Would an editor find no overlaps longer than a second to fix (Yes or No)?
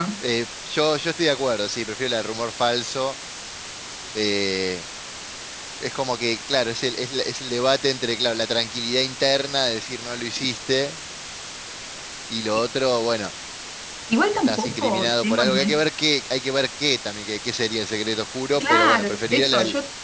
No